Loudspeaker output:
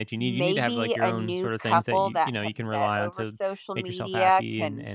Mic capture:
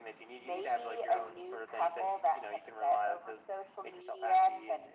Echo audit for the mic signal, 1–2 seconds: echo only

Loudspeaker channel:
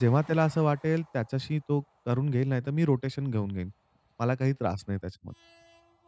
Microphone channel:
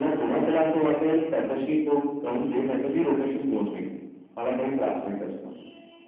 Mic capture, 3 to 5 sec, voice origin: echo only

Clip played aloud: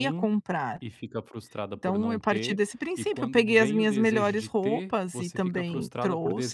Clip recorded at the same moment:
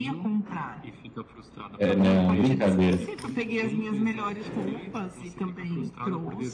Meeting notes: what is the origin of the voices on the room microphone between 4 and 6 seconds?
echo only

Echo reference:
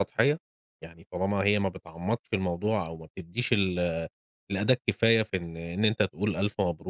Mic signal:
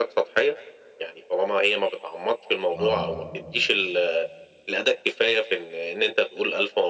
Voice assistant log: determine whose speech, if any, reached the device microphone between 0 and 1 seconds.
echo only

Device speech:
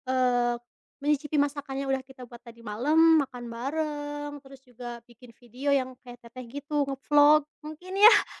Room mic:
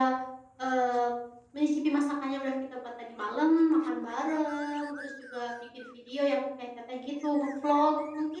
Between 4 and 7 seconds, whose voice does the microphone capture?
echo only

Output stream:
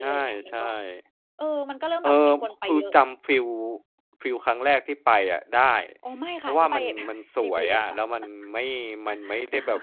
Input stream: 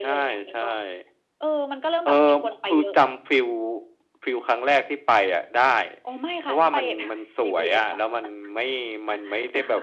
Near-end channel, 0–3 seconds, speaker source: echo only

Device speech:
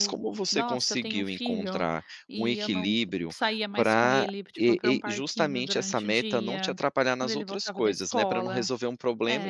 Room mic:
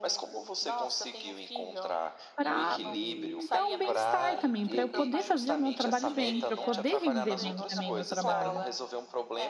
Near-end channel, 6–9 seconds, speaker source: both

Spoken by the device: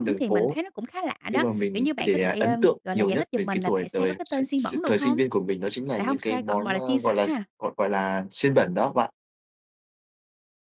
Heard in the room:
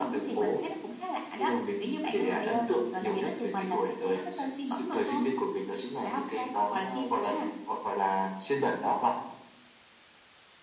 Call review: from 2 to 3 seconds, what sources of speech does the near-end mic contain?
both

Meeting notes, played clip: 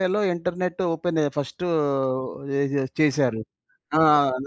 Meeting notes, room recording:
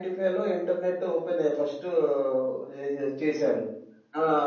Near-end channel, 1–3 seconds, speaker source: echo only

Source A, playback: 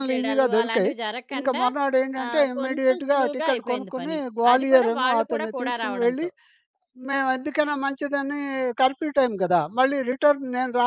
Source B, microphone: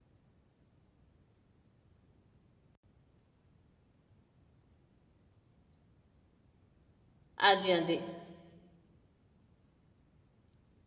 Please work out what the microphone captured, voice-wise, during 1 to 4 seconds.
neither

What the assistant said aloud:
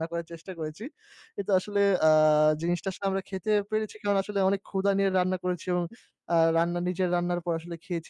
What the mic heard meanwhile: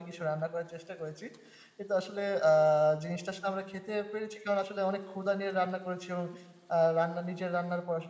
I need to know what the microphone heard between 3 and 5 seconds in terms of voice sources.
echo only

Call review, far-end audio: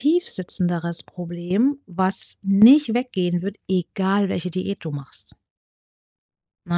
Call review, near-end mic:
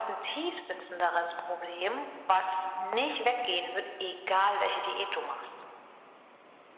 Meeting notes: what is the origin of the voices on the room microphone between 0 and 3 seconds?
echo only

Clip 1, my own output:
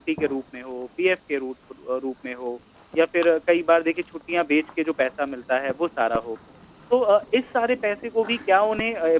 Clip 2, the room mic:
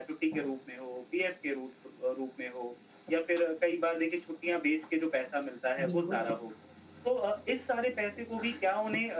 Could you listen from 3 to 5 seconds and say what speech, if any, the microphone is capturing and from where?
echo only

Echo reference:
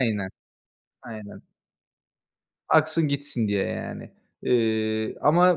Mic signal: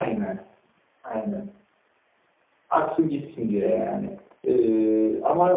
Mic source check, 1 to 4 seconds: echo only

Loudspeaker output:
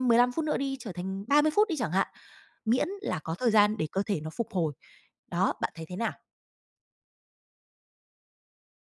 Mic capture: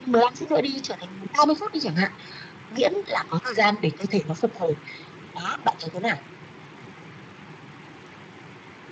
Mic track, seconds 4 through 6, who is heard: echo only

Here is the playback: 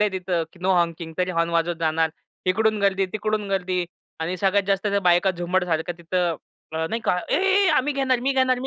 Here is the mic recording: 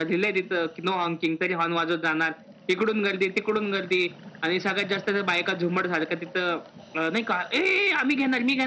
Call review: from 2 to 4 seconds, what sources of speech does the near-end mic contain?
echo only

